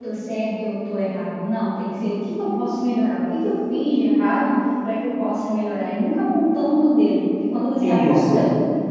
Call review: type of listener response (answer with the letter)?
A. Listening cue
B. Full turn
A